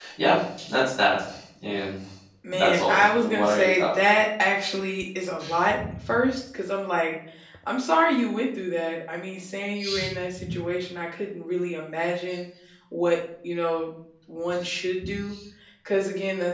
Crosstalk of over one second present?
Yes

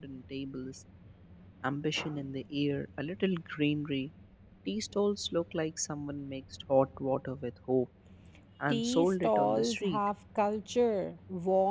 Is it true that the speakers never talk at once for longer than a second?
No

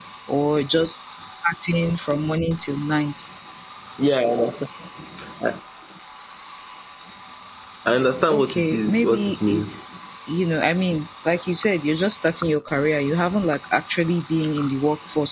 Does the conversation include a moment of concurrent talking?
Yes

